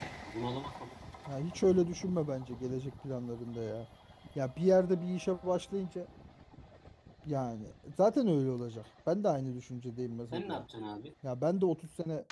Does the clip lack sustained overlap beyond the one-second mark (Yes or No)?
Yes